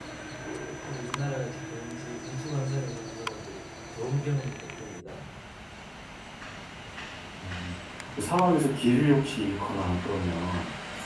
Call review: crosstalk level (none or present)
none